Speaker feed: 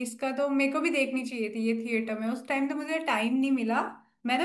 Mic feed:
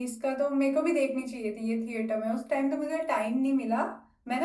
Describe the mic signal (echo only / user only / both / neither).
echo only